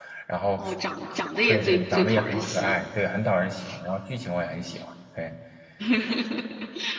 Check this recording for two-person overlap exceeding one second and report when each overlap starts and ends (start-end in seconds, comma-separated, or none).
1.5-2.7